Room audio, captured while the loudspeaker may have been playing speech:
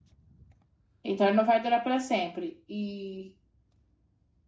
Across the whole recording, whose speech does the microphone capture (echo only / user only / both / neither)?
user only